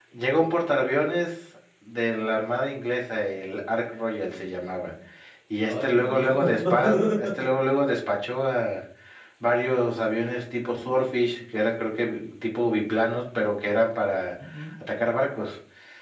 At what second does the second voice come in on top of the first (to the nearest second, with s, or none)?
6 s